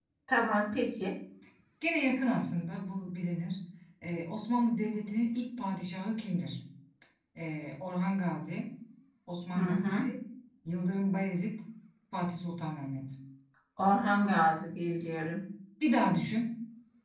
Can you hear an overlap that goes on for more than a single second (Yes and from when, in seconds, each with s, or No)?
No